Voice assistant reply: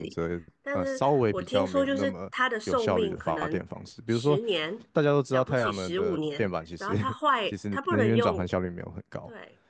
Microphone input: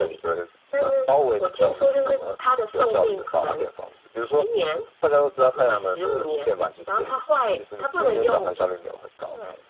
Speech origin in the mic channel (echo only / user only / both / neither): echo only